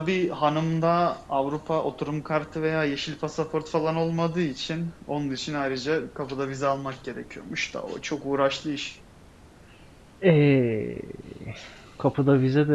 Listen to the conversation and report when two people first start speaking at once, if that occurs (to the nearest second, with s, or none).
none